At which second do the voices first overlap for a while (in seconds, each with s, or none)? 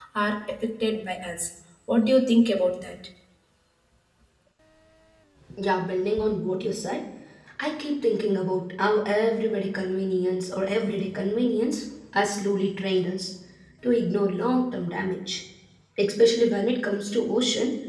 none